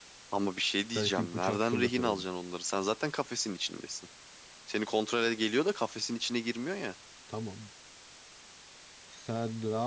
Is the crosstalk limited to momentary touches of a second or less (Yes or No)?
No